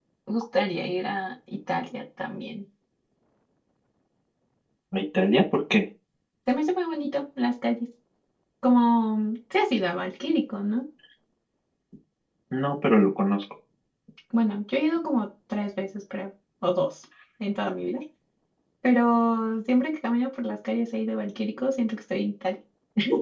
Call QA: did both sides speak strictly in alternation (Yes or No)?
Yes